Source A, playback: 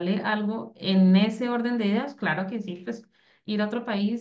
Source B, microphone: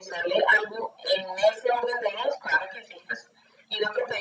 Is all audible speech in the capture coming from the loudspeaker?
Yes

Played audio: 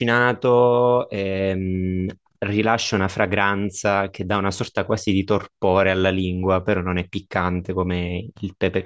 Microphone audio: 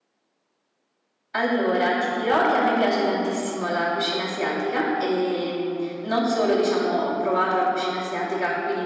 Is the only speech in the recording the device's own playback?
No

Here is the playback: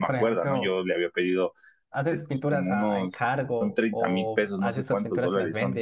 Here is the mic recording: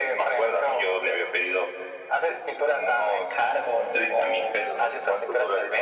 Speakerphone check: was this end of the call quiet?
Yes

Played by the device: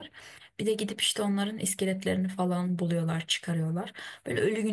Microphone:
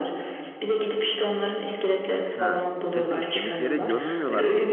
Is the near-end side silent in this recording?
No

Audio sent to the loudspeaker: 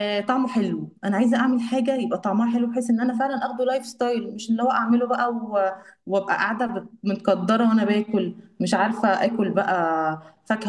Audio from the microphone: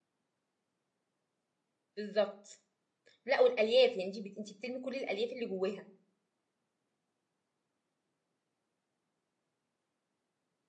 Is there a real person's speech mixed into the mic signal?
Yes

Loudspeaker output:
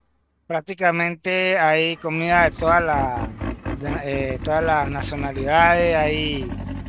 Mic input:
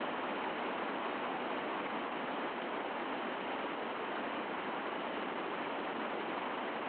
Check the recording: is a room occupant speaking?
No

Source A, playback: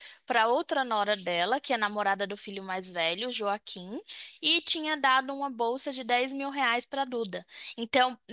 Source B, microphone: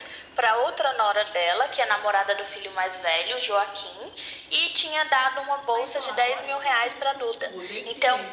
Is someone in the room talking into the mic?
Yes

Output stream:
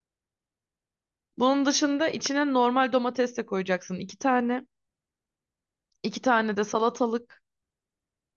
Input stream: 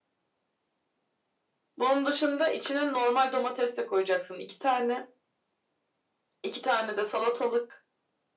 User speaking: No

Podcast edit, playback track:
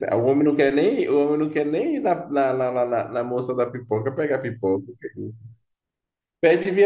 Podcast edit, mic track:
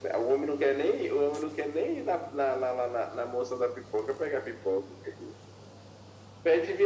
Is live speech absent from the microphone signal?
Yes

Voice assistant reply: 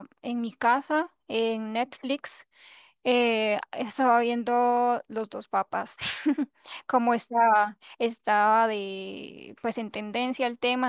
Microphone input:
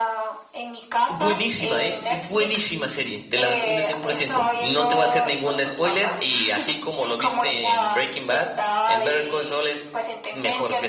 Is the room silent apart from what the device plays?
No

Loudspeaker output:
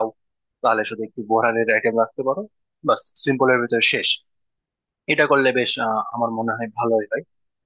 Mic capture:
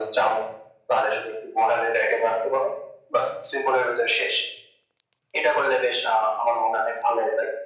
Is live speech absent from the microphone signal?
Yes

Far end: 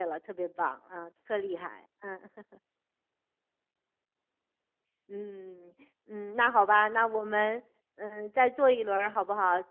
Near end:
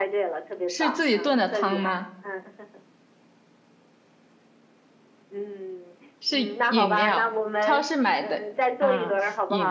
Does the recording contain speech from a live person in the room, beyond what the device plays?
Yes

